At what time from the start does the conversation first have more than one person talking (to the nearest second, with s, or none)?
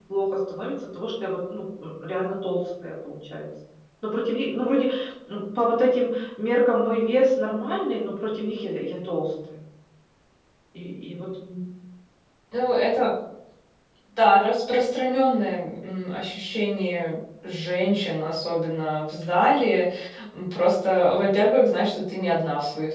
none